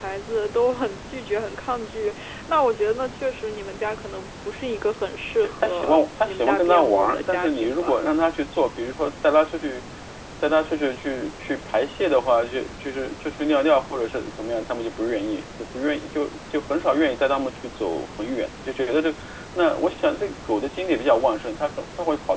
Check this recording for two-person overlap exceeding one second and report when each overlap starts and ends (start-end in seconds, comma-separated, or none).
5.4-8.0